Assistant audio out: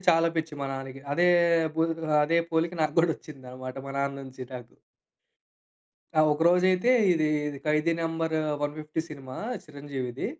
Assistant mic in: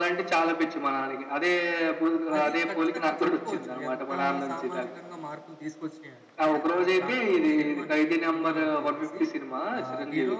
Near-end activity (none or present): present